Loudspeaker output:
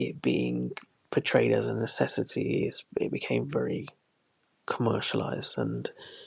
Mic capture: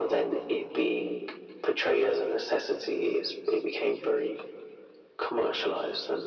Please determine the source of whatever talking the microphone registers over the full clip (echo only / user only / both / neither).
echo only